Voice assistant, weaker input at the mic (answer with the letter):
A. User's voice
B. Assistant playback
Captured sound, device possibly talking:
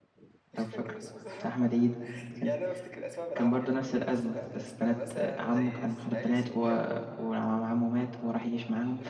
B